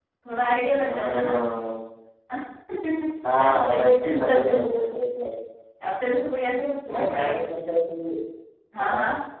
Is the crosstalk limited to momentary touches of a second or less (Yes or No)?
No